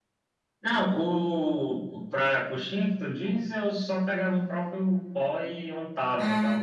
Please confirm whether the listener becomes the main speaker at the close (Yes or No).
No